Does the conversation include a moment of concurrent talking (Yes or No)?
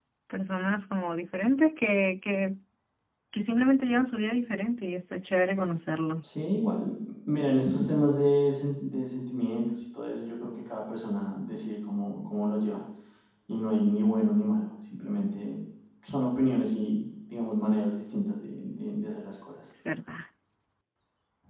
No